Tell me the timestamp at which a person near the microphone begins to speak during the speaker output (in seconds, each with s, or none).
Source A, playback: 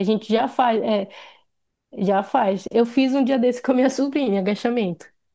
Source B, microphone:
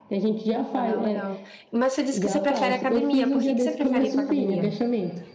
0.7 s